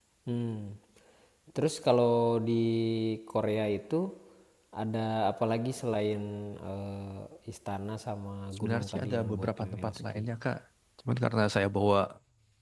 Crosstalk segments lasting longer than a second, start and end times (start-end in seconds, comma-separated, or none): 8.6-10.2